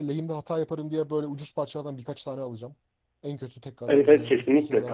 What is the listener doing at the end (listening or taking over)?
taking over